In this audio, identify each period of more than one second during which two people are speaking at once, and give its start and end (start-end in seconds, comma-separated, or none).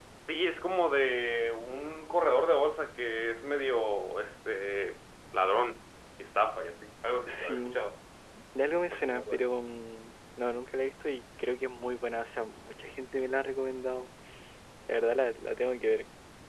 none